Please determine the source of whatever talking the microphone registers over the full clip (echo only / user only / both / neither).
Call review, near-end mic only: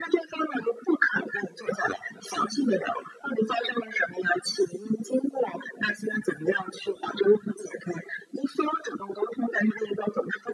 echo only